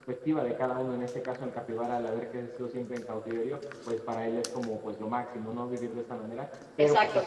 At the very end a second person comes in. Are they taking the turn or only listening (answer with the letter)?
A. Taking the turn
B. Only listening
A